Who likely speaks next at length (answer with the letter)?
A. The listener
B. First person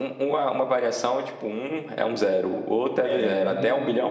A